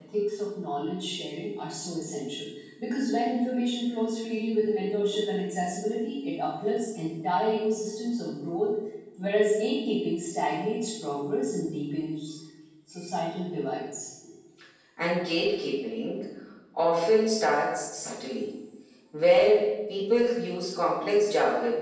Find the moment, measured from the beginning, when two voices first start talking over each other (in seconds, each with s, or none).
none